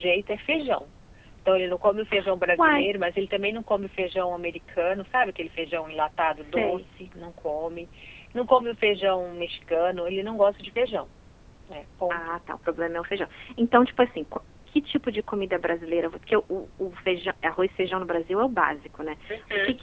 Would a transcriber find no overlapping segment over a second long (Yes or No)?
Yes